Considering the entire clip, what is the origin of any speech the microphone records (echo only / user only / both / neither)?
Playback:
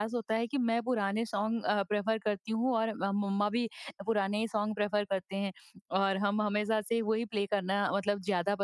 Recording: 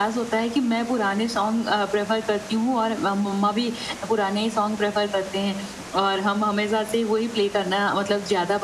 echo only